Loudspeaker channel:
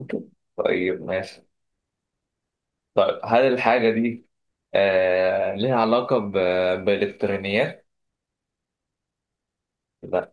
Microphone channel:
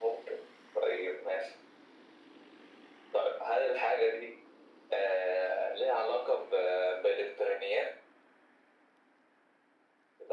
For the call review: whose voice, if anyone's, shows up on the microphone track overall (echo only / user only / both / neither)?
echo only